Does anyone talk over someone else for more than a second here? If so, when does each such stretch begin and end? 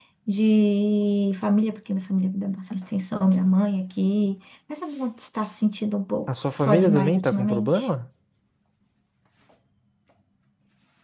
6.3-7.9

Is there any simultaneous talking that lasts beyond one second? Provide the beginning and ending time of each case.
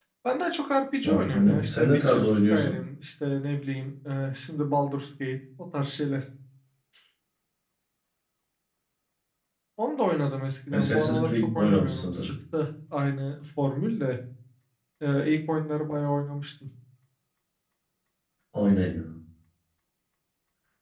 1.3-2.7, 10.7-12.3

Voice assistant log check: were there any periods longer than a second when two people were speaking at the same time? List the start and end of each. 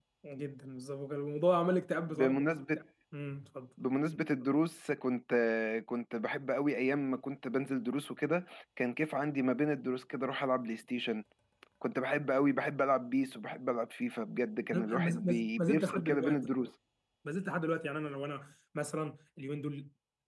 14.7-16.5

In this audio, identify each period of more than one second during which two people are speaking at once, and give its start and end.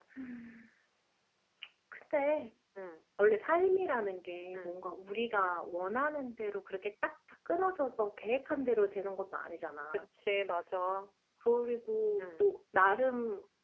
none

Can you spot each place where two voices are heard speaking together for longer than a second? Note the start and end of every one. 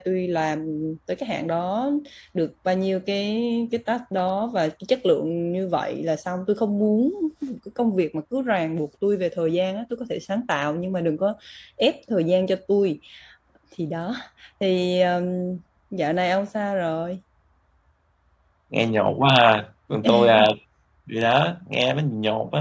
none

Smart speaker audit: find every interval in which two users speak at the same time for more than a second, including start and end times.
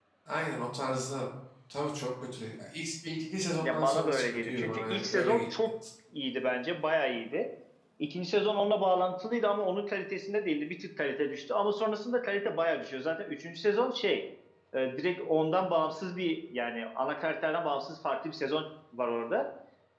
3.6-5.4

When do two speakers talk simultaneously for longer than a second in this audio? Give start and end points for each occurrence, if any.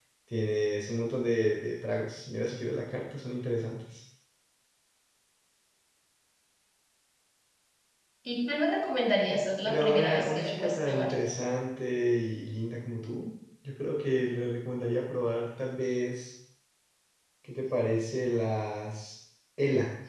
9.7-11.1

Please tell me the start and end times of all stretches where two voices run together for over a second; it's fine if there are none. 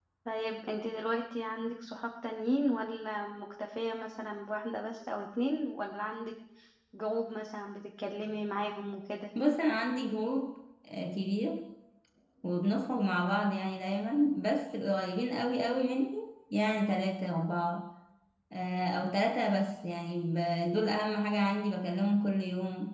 none

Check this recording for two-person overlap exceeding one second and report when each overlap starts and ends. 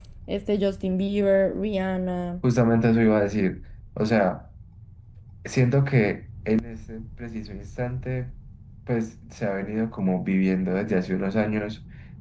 none

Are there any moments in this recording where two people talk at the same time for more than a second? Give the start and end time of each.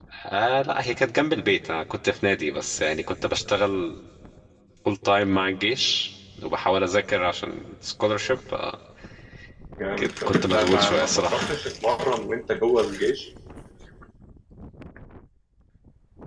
10.0-11.6

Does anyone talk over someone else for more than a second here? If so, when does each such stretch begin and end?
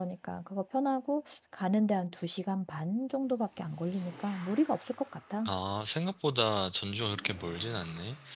none

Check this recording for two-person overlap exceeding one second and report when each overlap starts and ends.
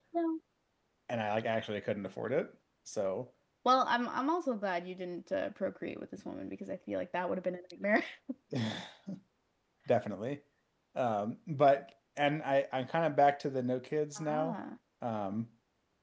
none

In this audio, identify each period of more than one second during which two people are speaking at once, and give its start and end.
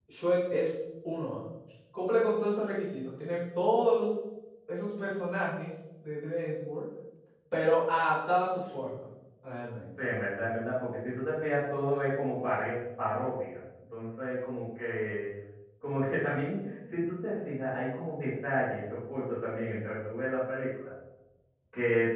none

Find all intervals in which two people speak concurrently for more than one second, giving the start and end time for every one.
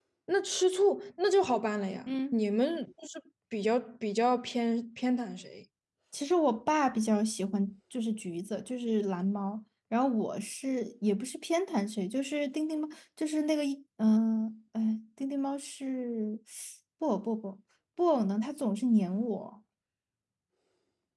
none

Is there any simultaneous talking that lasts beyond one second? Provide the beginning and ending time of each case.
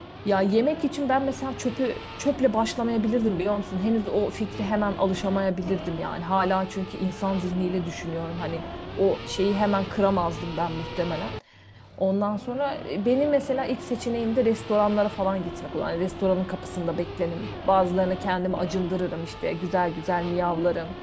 none

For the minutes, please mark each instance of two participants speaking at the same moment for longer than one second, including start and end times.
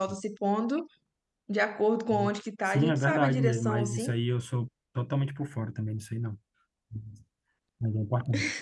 2.7-4.1

